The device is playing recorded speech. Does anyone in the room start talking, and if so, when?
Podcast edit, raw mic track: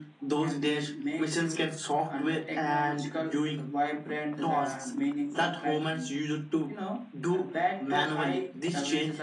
none

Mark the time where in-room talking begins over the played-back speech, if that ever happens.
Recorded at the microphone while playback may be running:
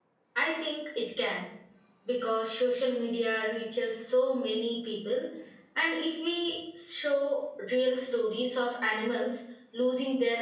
0 s

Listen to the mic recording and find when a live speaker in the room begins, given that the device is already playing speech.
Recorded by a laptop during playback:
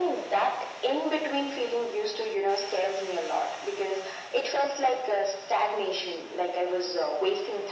none

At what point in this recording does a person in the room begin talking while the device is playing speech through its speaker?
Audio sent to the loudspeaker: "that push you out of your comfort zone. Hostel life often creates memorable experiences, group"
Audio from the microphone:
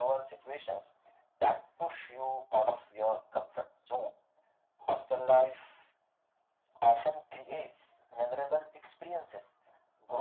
none

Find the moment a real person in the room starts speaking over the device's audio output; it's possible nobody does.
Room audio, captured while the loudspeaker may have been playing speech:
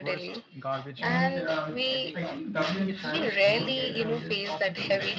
1 s

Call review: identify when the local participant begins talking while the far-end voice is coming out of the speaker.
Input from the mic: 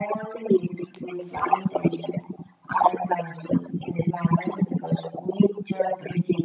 none

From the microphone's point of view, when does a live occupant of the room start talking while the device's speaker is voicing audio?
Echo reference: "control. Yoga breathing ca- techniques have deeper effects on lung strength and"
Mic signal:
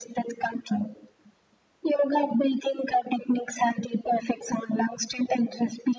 none

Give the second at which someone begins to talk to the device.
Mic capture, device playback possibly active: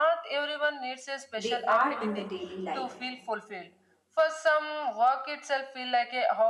1 s

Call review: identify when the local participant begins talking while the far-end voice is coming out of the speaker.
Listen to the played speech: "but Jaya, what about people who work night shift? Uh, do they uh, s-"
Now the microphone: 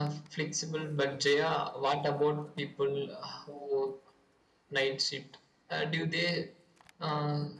none

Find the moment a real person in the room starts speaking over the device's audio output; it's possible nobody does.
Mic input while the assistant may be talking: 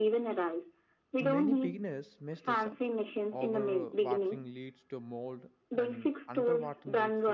1 s

